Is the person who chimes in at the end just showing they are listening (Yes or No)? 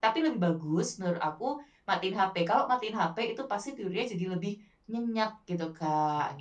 No